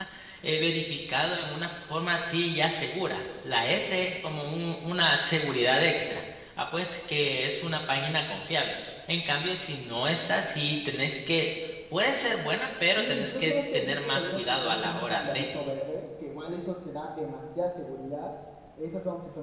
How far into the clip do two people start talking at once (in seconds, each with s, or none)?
13.0 s